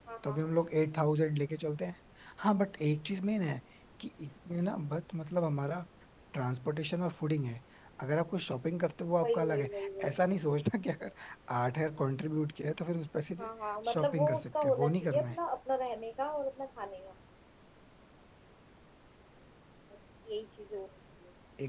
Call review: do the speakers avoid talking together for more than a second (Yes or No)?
No